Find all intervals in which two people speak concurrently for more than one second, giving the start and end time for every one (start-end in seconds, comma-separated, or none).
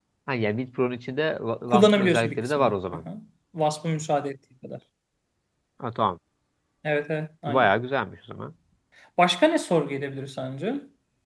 1.7-3.0